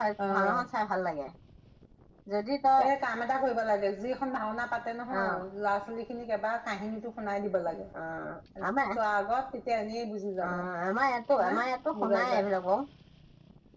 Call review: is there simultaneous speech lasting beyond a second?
No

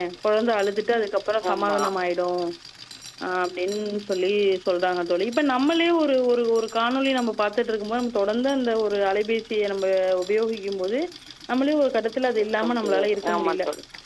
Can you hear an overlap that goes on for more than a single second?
Yes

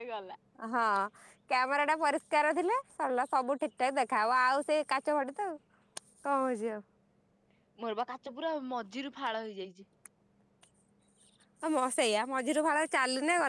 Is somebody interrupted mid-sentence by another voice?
No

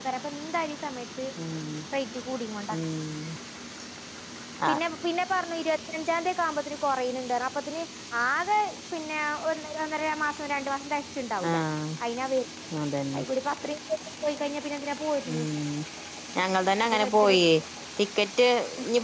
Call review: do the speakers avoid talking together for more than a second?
Yes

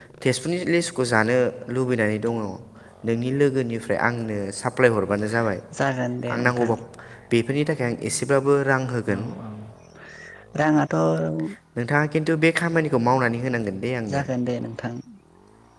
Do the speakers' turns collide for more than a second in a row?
No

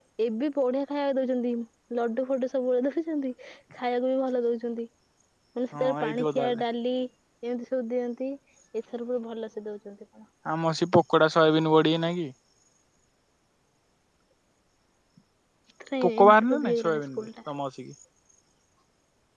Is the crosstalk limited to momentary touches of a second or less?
No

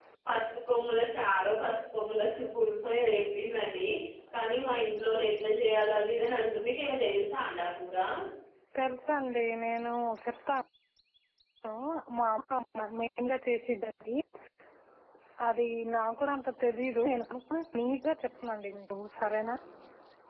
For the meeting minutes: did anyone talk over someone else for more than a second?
No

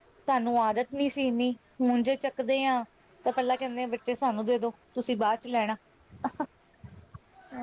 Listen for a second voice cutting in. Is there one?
No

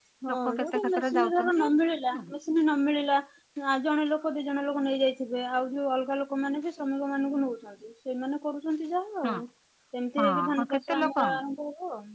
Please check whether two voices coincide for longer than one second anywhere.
Yes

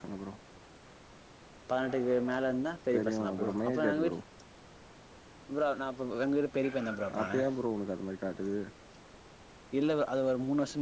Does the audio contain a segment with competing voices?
Yes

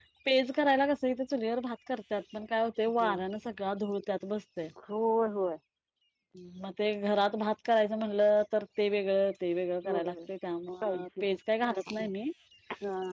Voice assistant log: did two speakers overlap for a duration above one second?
No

